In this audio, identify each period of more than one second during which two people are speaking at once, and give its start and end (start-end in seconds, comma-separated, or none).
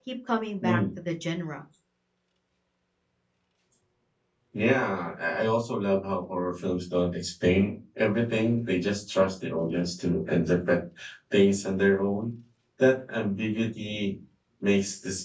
none